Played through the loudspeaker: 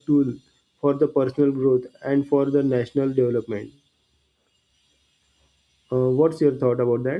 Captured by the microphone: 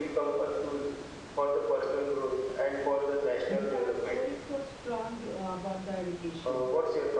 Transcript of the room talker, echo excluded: I said our core is so strong d- uh, about the education.

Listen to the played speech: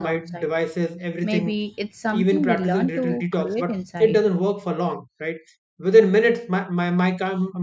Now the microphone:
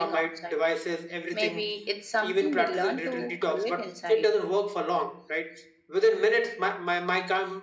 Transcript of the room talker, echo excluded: none

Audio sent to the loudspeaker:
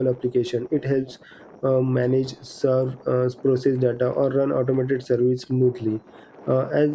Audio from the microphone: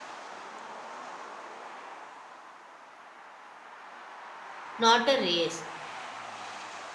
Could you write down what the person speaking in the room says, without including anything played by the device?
not a race

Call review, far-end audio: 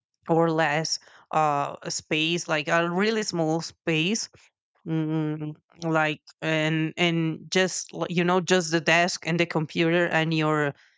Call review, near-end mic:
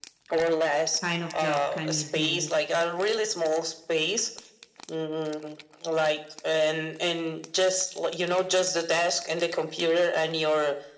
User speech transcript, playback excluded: kind of job can you do

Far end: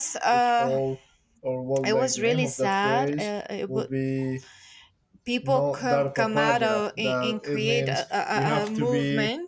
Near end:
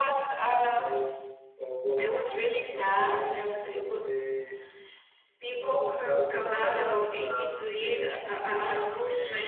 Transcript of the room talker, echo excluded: none

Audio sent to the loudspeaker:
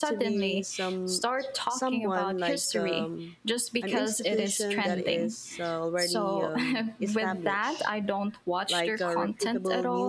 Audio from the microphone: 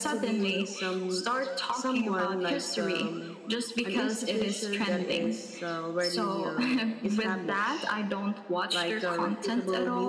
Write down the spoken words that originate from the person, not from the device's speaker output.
none

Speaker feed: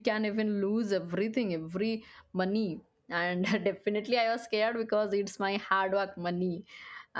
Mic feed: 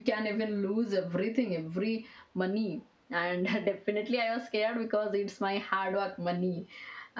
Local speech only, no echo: none

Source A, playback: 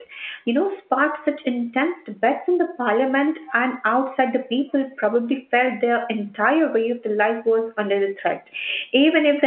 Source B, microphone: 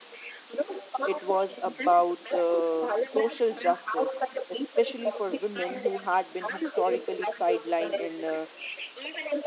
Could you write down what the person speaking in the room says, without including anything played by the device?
it was about uh, social justice, especially for women who had been historically sidelined in uh,

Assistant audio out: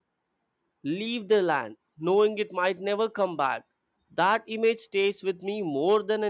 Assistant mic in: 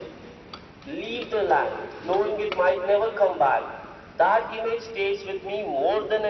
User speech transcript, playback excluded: none

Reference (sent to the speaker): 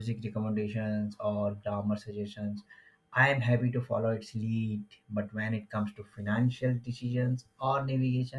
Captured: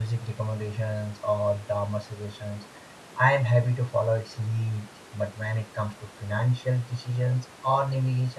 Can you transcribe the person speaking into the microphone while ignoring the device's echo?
none

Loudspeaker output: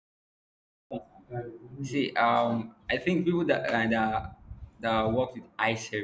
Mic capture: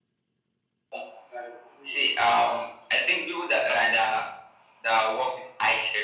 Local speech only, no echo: none

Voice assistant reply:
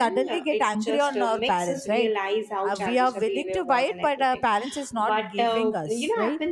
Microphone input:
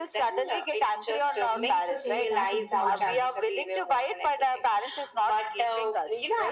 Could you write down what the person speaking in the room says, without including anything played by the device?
need to take that into our head.

